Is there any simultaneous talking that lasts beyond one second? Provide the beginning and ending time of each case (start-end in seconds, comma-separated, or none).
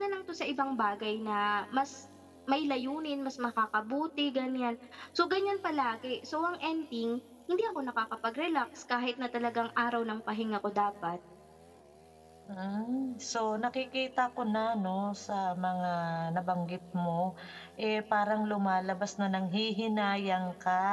none